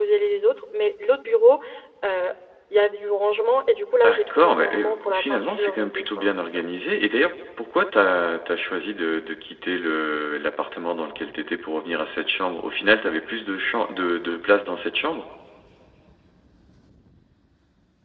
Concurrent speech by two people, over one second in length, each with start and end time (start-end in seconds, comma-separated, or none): 4.0-6.6